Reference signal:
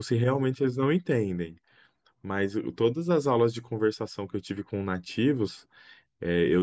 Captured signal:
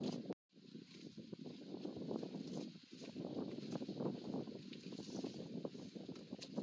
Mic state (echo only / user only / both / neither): neither